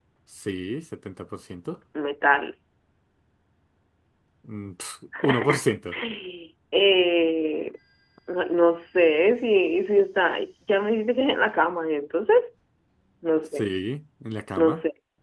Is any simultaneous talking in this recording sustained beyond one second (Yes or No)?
No